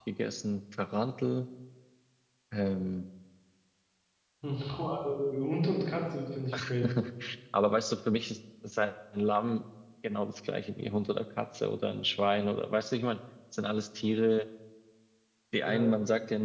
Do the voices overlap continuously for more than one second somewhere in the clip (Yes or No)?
No